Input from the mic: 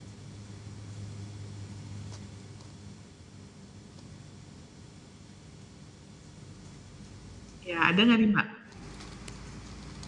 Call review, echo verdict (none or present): none